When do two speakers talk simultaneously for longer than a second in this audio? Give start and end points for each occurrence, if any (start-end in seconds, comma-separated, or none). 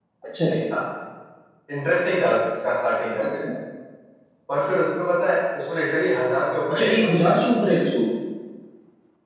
none